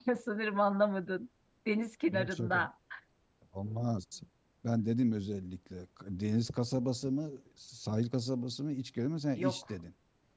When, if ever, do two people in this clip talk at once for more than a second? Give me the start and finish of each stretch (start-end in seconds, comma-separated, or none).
none